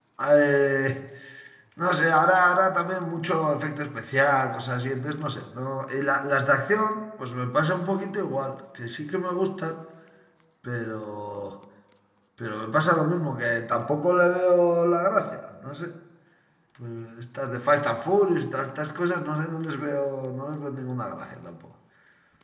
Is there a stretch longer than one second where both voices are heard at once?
No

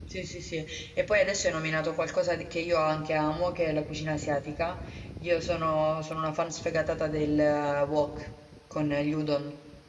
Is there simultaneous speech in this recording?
No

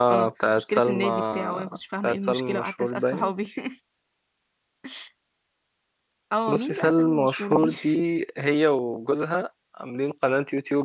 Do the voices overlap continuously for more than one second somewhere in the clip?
Yes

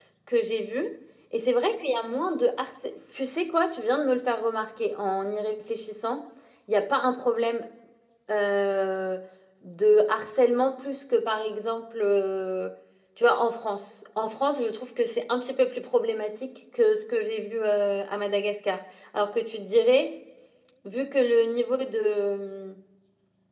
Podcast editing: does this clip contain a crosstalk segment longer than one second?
No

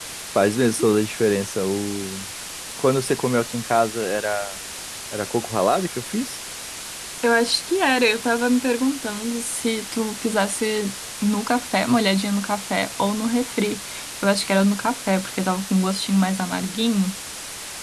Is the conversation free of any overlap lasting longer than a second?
Yes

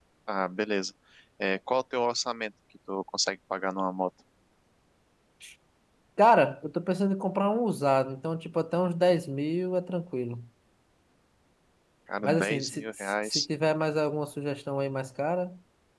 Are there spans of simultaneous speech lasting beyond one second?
Yes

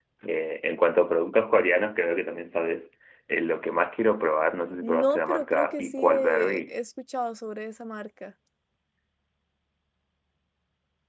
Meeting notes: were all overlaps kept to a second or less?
No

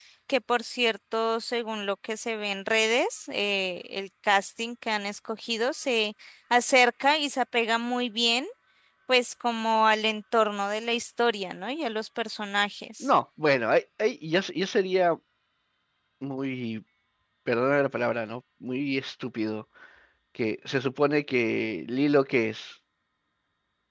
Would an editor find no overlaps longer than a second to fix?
Yes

